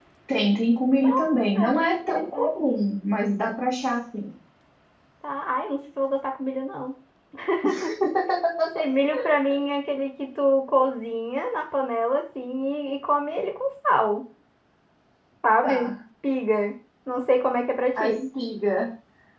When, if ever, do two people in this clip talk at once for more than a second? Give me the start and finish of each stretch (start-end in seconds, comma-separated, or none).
1.0-2.5